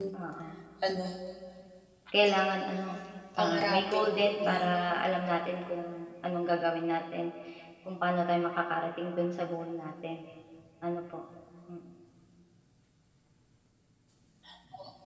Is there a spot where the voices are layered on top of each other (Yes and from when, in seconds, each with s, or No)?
Yes, from 3.4 s